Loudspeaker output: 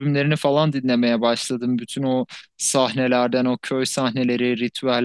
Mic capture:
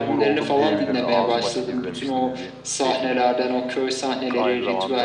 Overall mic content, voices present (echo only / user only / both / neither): both